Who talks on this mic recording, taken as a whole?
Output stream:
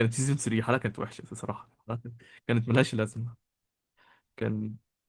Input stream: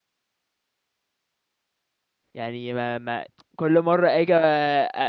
user only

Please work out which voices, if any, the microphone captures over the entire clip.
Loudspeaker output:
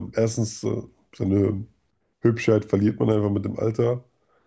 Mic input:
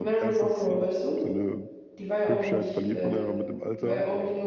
both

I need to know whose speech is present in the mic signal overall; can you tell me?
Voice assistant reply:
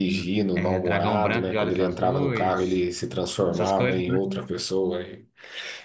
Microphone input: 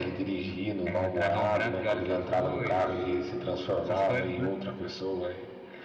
echo only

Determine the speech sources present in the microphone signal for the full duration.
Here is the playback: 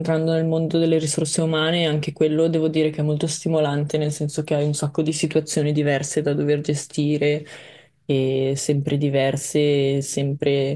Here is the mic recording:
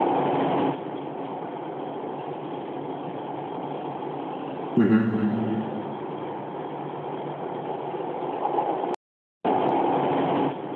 user only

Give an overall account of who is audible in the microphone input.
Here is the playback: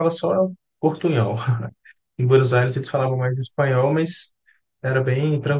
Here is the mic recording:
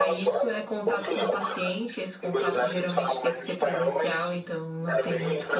both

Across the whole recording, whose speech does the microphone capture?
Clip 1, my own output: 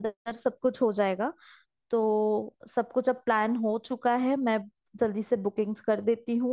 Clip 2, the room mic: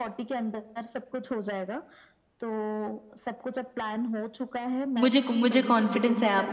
both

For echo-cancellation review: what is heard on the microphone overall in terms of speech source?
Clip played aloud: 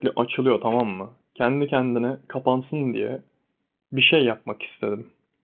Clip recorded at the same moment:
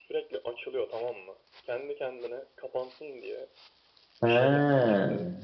both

